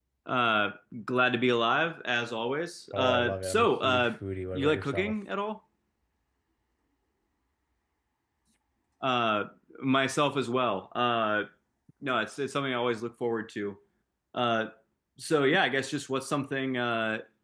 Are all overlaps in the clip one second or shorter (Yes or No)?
No